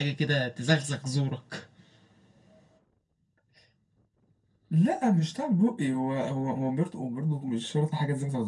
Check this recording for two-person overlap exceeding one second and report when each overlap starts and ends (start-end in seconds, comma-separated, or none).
none